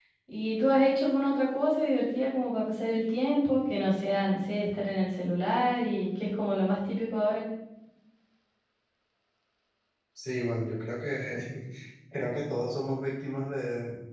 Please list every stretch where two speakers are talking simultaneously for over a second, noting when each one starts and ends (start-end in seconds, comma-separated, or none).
none